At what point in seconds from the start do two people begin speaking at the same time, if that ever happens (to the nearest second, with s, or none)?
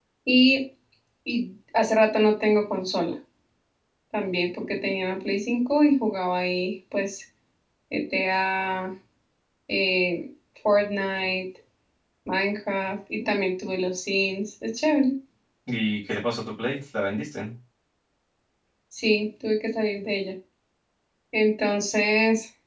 none